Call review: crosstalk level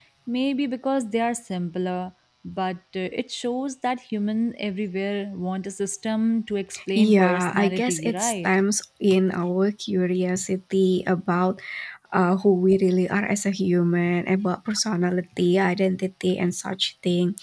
present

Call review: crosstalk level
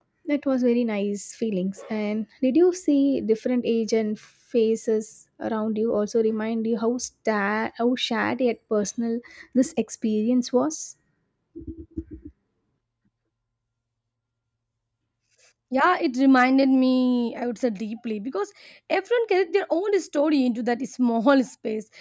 none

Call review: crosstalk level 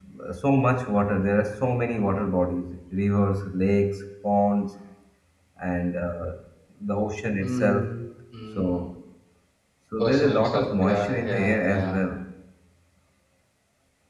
present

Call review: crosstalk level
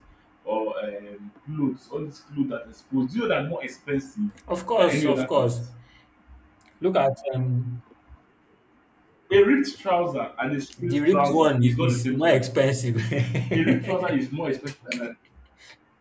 present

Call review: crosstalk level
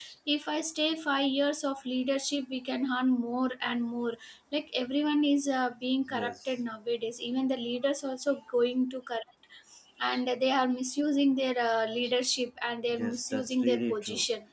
present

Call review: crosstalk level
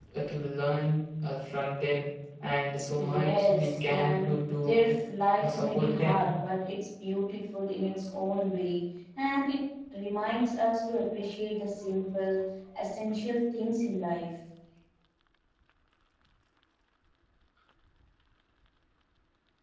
present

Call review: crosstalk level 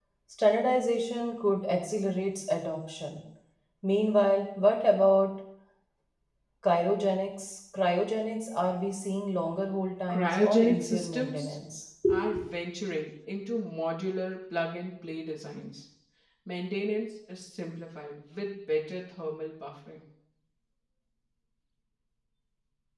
present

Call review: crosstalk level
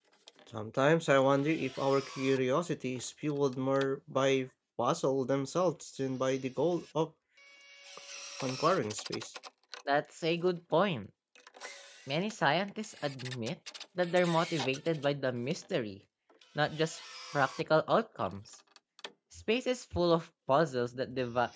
none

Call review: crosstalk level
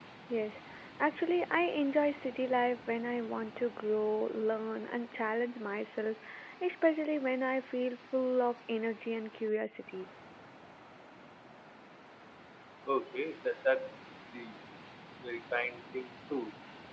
none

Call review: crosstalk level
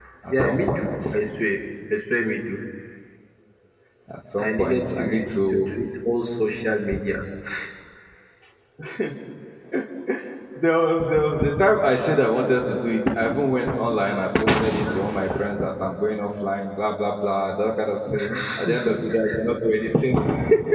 present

